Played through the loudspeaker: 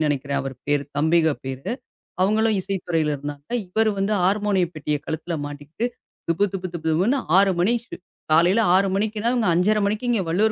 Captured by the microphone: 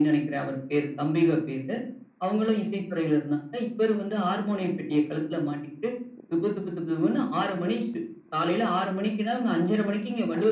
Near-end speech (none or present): none